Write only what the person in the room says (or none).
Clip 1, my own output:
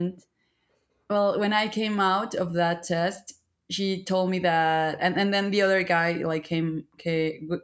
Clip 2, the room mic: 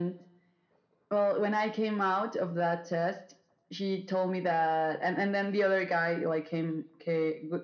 none